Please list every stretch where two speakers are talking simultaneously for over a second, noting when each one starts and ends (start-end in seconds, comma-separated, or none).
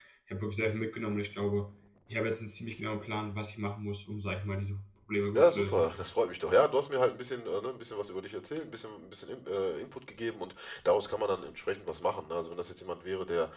none